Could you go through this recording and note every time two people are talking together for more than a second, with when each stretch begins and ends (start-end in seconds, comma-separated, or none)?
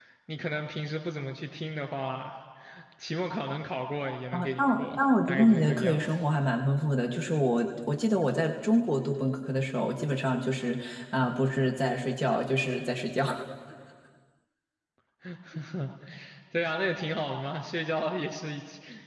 4.3-6.1